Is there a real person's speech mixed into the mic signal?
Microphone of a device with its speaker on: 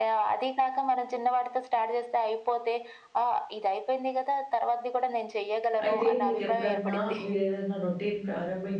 Yes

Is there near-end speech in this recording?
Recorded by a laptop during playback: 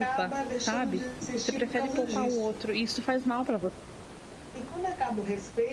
Yes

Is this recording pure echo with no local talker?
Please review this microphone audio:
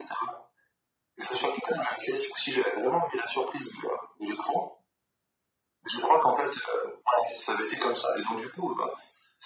Yes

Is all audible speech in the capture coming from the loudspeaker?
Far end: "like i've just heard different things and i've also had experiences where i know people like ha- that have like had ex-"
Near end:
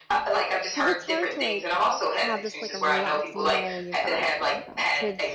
No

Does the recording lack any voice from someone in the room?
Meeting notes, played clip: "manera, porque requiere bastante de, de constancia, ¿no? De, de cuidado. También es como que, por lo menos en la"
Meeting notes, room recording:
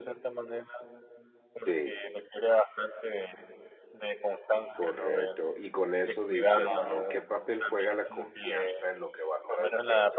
No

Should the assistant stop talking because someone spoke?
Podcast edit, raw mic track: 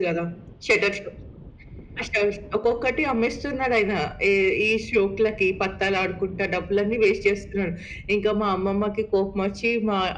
No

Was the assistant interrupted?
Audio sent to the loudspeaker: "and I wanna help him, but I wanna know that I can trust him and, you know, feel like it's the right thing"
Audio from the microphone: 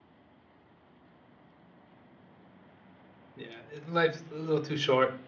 Yes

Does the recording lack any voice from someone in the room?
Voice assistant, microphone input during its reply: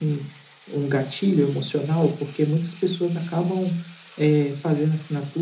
Yes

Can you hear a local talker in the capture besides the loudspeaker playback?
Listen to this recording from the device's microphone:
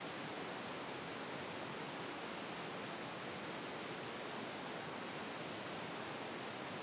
No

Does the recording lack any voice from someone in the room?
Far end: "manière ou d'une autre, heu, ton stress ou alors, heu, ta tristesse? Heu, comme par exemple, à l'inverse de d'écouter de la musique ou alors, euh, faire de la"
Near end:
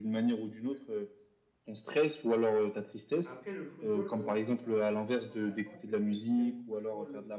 No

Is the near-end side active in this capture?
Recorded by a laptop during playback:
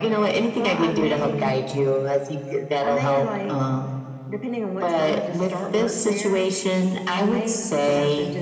No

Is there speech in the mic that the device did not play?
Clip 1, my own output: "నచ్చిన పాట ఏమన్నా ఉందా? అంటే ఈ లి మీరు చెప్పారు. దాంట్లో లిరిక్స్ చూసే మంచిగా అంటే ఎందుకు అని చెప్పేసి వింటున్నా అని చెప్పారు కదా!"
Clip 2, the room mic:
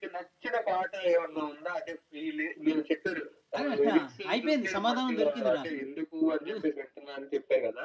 Yes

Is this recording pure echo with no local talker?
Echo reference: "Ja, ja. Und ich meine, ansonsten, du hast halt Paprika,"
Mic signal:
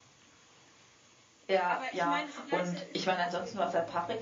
No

